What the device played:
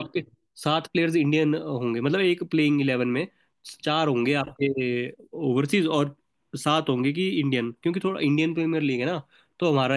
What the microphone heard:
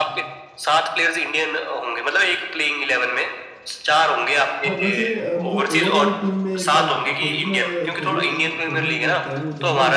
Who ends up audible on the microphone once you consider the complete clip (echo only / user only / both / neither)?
both